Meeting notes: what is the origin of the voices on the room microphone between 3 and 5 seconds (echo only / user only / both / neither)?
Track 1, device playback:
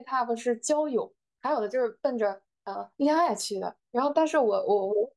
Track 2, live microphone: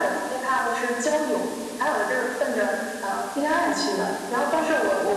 echo only